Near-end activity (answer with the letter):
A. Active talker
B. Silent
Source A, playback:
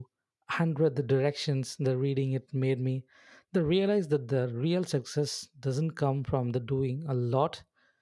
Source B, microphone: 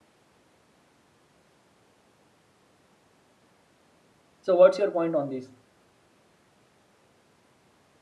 A